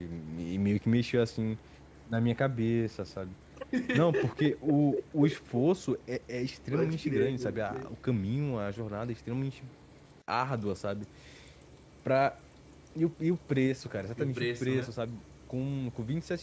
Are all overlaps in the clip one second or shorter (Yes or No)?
No